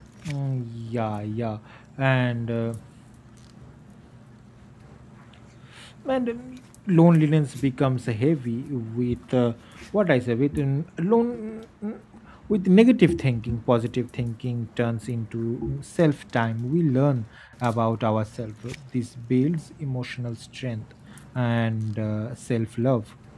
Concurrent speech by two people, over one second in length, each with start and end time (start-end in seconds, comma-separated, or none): none